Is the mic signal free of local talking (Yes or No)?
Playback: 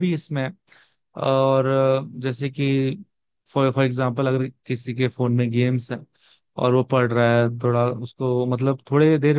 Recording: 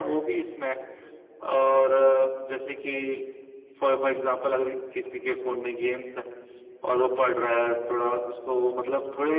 Yes